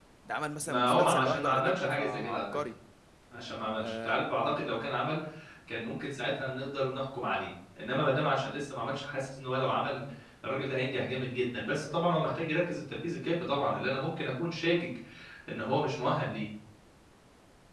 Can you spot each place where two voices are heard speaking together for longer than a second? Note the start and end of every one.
0.7-2.6

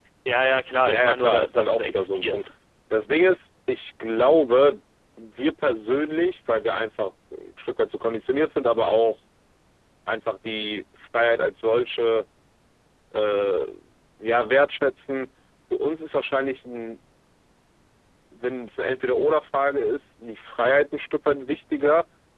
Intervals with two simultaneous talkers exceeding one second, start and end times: 0.9-2.5

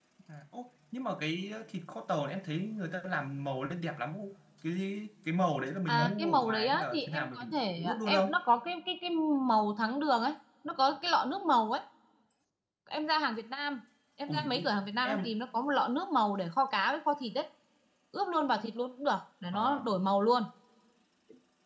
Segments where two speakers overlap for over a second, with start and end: 5.9-8.4

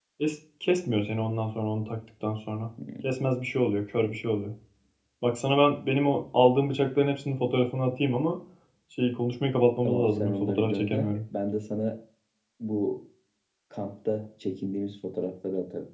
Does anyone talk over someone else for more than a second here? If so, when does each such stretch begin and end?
9.8-11.1

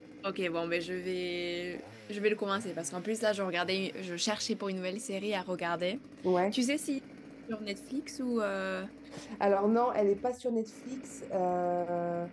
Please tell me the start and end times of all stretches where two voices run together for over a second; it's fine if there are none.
none

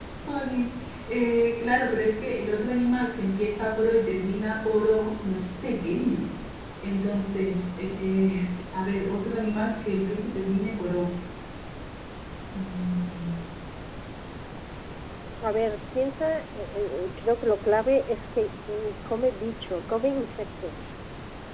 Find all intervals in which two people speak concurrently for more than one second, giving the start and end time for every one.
none

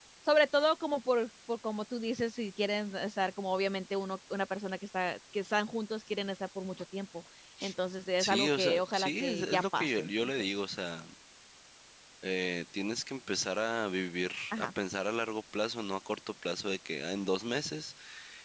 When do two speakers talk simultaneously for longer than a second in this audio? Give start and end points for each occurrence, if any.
8.2-10.5

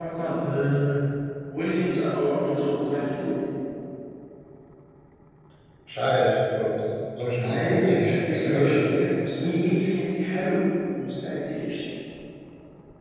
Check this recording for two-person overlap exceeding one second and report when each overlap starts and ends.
7.5-8.8

